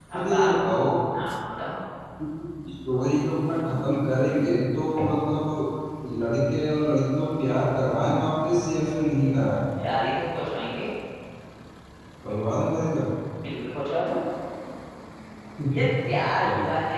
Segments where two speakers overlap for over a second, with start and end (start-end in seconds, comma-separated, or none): none